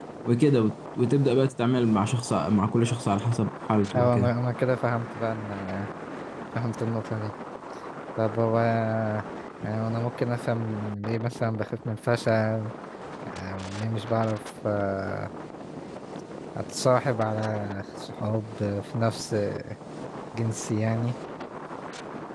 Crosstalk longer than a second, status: none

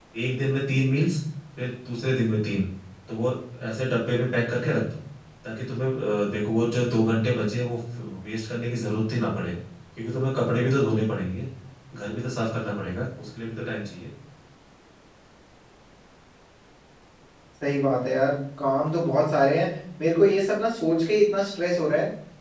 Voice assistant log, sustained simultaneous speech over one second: none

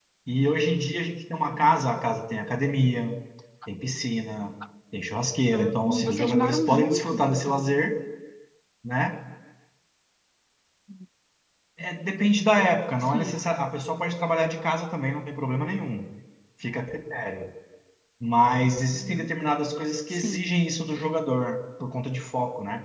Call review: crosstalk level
present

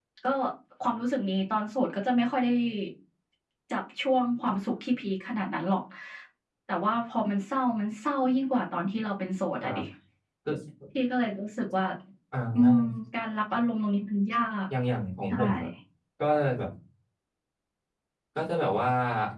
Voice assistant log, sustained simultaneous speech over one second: none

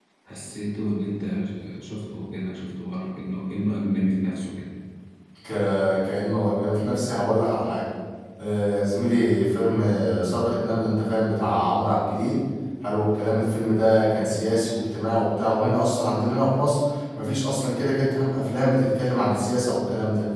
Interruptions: none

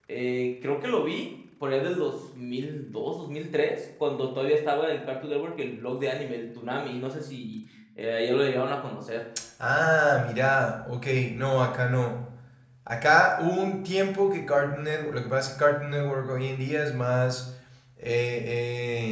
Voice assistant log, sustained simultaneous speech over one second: none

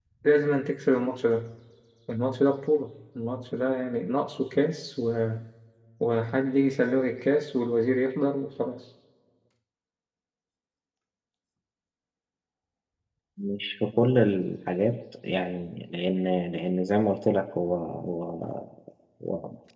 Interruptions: none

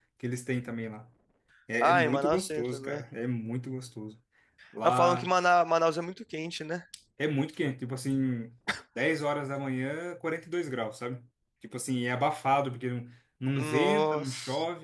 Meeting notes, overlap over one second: present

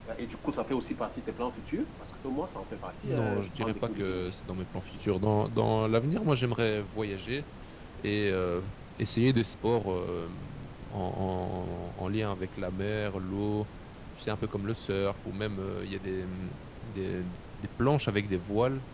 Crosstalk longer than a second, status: present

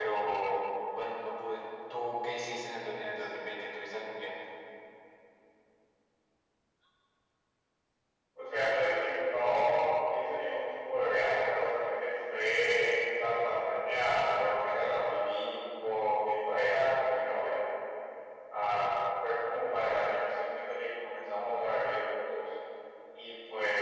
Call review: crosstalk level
none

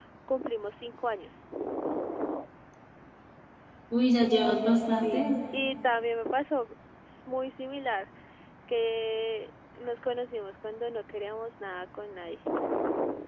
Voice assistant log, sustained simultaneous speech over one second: none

